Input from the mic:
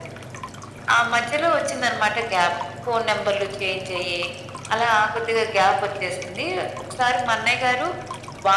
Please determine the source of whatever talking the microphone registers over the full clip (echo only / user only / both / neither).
echo only